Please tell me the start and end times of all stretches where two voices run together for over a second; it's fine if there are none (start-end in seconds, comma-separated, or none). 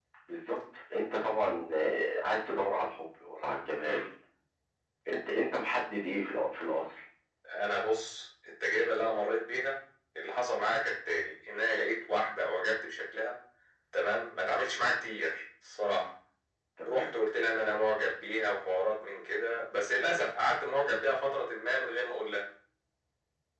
none